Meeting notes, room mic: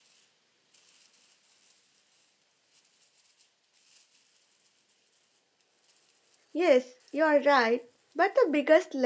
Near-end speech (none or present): present